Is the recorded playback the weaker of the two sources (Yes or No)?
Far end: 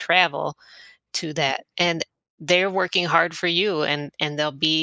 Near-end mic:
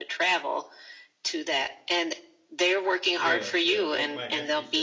No